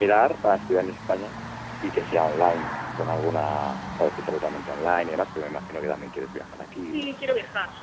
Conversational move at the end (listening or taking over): taking over